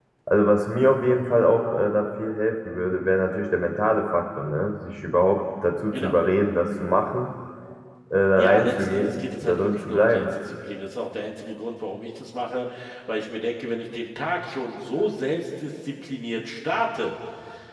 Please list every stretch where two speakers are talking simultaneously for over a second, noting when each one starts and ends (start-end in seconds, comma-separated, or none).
8.4-10.2